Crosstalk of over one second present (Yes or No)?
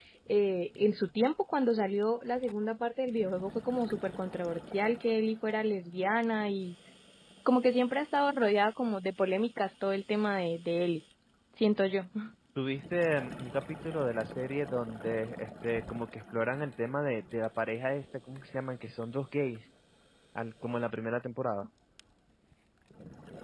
No